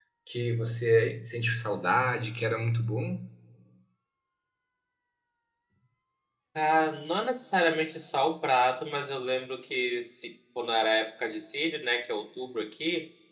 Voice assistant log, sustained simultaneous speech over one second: none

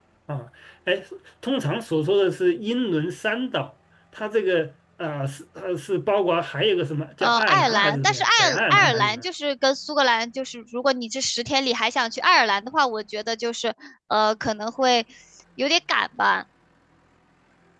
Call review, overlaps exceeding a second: present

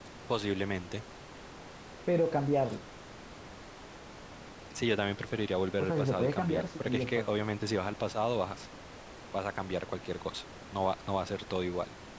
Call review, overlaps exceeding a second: present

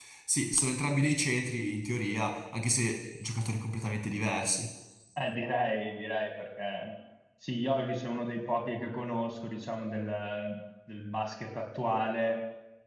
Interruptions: none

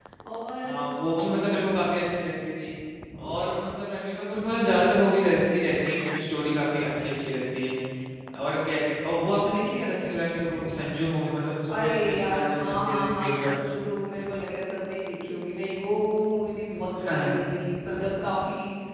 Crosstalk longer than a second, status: present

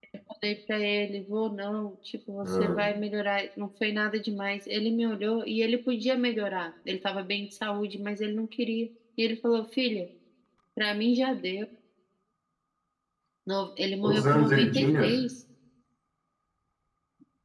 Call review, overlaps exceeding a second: present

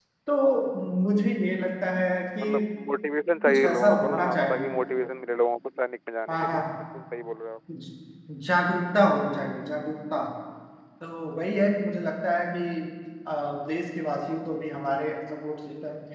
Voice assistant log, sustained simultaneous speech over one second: present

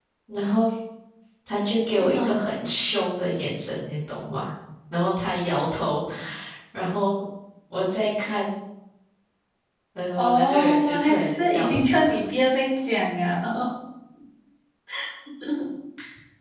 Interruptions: present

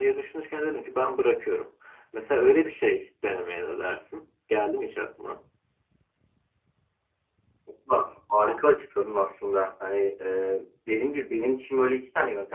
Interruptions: none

